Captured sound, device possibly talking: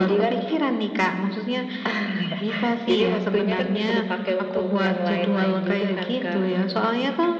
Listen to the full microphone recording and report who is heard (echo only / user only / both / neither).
echo only